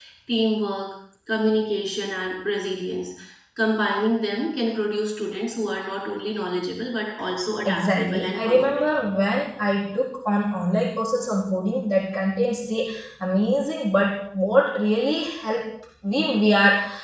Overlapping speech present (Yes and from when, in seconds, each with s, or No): Yes, from 7.6 s